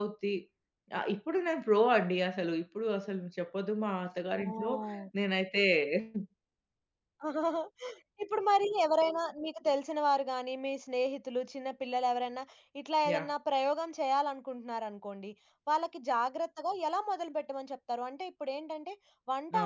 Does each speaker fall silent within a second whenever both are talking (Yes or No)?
Yes